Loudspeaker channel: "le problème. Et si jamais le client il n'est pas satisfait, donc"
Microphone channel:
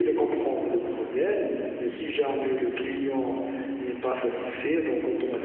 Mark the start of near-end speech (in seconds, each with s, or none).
none